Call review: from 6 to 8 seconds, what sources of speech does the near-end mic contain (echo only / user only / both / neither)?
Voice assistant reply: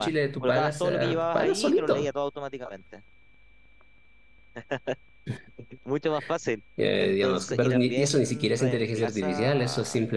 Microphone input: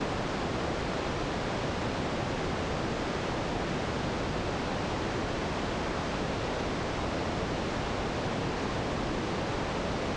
neither